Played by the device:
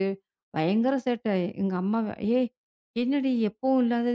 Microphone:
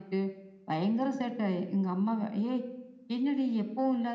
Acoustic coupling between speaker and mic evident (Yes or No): Yes